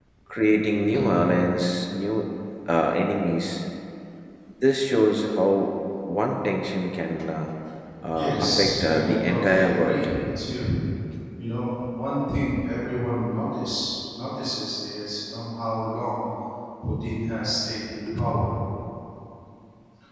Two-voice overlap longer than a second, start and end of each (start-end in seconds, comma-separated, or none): 8.1-10.1